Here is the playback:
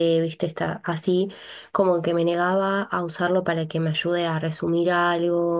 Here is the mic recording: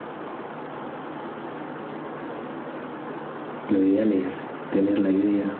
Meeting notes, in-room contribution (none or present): present